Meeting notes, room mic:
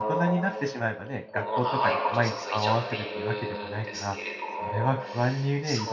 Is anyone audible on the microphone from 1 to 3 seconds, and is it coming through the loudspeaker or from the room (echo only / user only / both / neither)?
both